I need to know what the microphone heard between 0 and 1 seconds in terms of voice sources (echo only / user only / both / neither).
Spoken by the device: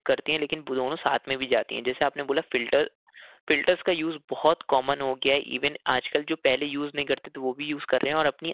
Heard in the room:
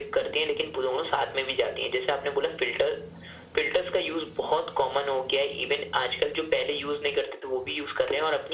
echo only